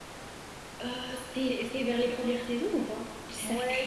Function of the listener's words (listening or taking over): taking over